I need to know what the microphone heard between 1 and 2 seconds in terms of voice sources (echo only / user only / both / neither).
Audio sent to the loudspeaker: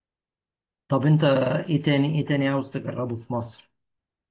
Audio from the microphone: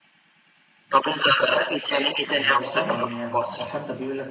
echo only